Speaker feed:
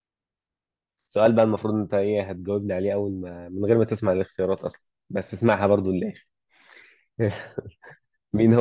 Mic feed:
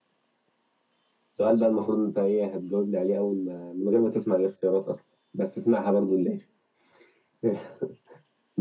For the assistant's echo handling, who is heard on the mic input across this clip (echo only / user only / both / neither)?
both